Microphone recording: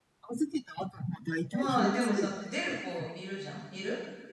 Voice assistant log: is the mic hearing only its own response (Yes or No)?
No